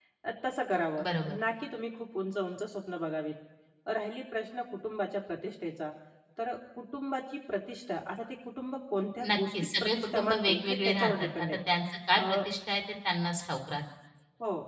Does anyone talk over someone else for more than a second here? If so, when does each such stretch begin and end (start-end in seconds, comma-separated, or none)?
9.2-11.5